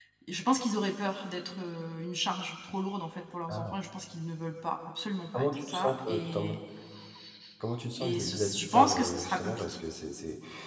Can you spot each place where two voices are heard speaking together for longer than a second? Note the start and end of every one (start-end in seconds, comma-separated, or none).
5.3-6.5, 8.0-9.8